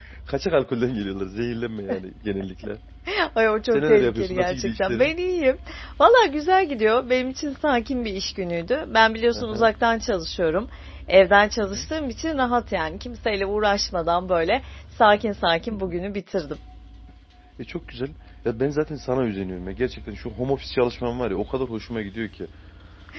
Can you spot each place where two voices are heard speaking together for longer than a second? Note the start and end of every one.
3.7-5.1

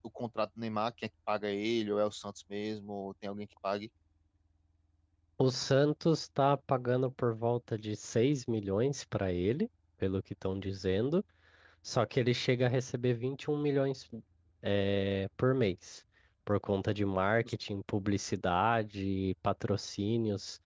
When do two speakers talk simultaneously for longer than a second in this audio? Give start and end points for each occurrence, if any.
none

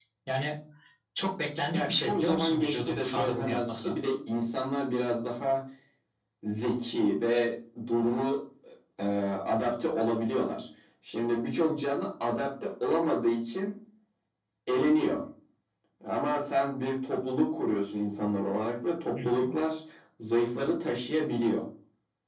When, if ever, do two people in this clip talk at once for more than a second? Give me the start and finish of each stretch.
1.7-3.9

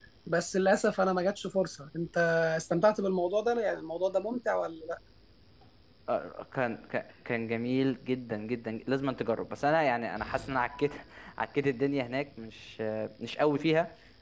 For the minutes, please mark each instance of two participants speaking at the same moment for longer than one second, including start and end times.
none

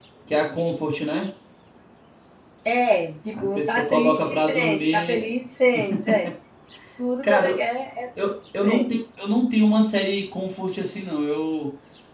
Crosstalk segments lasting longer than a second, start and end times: 3.3-5.3

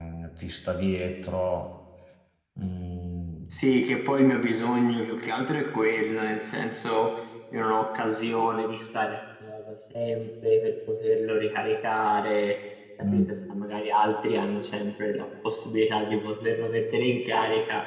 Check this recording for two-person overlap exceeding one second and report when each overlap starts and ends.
none

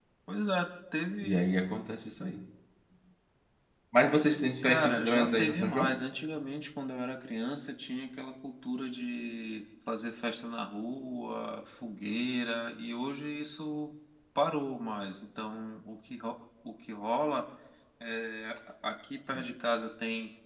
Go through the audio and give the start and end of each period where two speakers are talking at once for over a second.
4.6-6.0

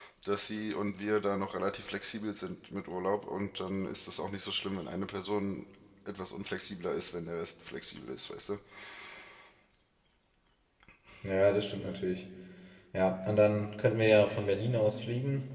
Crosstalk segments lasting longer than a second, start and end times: none

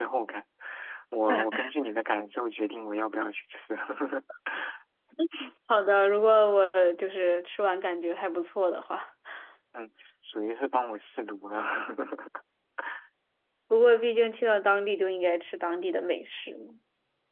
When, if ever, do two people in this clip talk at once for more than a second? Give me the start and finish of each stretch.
none

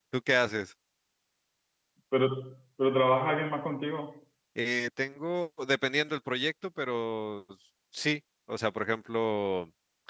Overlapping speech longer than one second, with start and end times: none

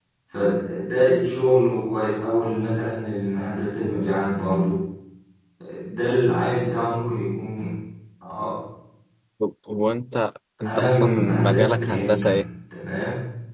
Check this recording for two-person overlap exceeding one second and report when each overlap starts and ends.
10.6-12.4

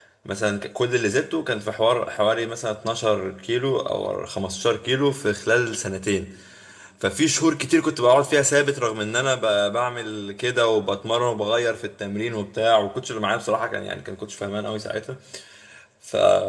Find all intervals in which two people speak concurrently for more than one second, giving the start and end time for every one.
none

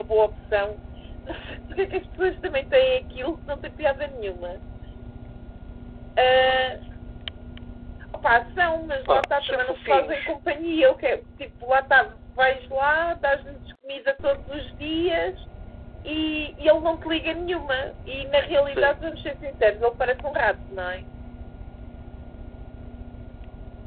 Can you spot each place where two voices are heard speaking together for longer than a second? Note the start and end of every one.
9.1-10.3

